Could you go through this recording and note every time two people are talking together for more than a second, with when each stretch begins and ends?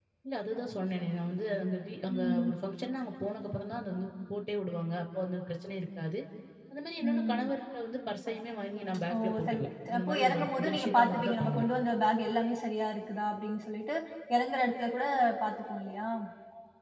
10.0-11.6

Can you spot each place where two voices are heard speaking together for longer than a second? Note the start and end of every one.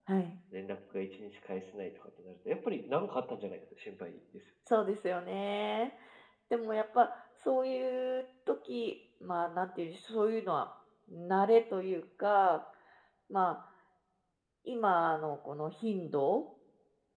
none

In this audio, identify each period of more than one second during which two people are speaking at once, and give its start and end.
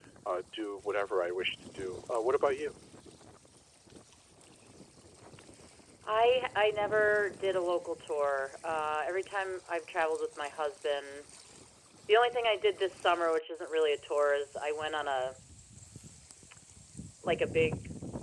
none

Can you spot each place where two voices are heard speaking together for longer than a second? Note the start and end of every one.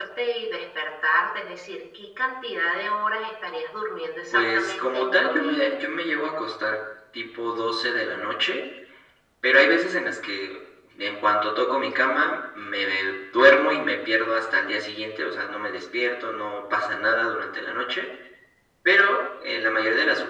4.3-5.8

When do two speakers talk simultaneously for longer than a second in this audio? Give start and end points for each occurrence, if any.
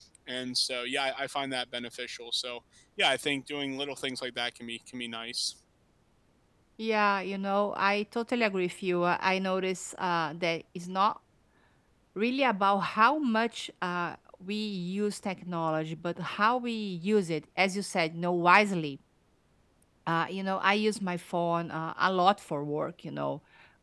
none

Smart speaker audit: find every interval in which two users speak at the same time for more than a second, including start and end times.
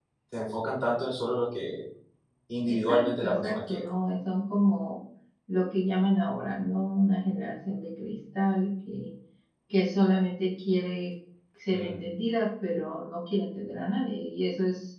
2.6-3.9

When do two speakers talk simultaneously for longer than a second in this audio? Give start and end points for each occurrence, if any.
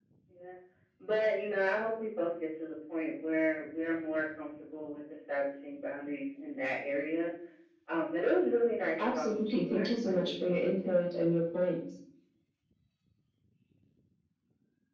9.0-11.3

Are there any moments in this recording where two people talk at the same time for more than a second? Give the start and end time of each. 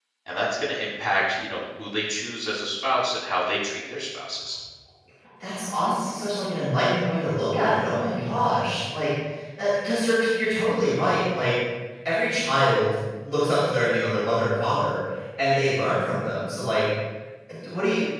none

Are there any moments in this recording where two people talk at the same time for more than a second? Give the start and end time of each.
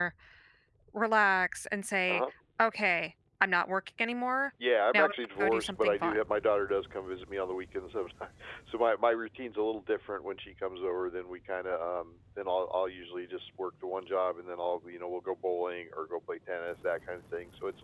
4.9-6.2

